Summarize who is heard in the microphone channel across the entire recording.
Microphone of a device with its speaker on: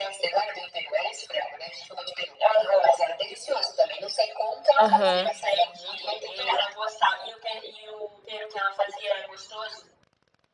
both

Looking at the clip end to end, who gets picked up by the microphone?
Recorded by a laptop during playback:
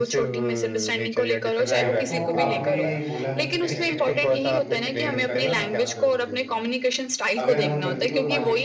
both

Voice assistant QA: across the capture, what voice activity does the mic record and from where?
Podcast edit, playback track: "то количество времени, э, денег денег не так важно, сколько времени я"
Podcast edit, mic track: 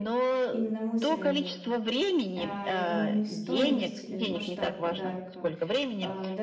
both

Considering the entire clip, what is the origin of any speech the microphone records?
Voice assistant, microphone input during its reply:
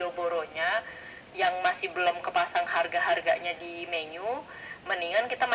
echo only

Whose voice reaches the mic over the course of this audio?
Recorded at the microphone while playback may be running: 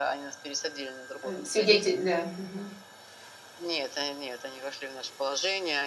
both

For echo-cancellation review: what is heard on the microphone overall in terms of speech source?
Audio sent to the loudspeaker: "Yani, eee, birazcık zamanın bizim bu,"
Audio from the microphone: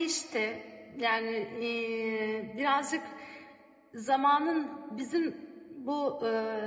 echo only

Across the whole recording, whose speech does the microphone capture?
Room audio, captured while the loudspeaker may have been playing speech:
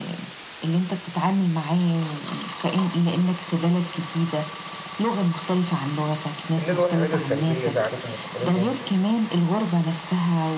both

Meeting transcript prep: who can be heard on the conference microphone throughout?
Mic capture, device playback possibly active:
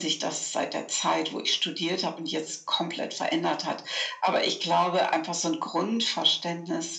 echo only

